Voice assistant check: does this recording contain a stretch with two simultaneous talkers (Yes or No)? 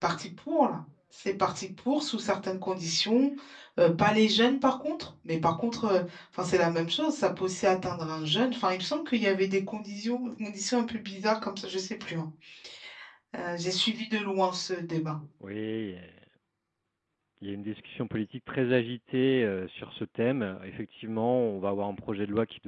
No